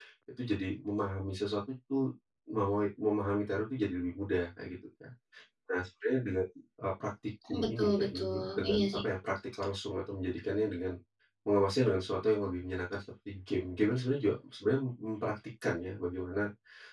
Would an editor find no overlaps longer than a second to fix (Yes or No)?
No